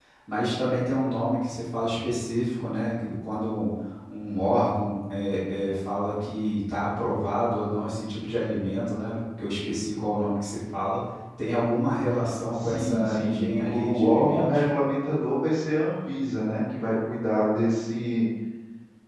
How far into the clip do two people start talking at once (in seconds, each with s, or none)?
12.5 s